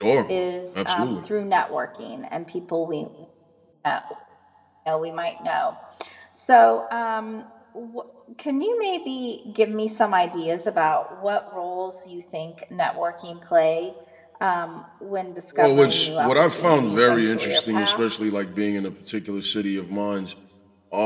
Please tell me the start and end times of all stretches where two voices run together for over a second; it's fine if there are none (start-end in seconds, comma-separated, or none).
15.6-18.2